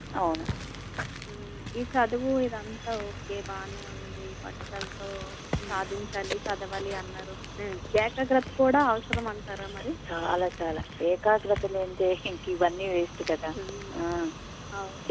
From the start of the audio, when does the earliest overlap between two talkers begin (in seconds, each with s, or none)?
none